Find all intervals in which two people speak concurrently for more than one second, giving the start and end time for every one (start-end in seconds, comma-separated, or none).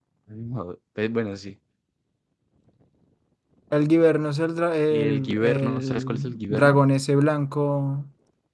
4.9-6.8